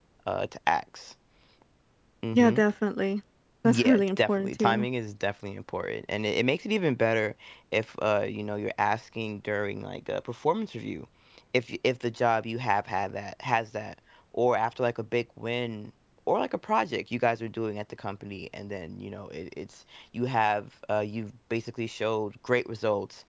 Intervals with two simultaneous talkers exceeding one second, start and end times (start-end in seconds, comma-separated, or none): 3.6-4.8